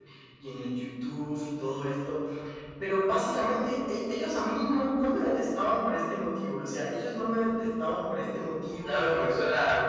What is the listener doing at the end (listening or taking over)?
taking over